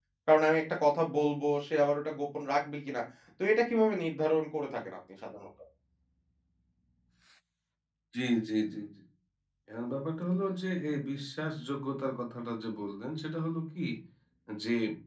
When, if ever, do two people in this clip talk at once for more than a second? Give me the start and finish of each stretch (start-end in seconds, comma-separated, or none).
none